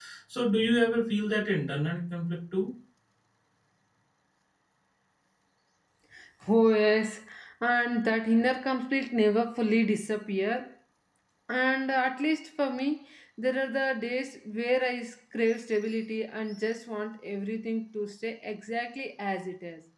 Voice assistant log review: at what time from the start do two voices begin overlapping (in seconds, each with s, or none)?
none